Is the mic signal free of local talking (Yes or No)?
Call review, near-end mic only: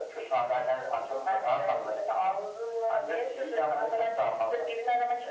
Yes